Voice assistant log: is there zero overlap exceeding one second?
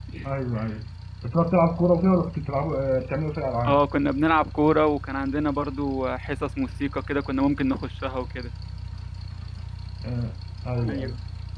Yes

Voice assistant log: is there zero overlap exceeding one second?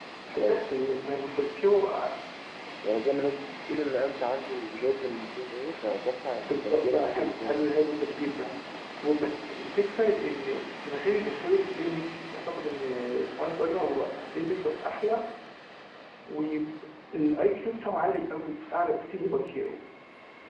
No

